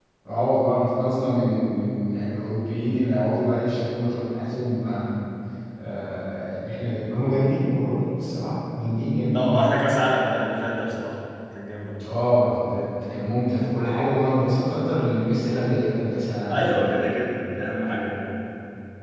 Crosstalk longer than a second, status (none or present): none